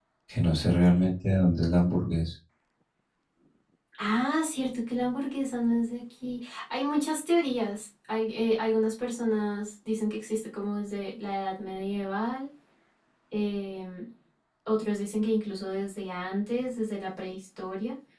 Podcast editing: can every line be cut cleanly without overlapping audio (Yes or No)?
Yes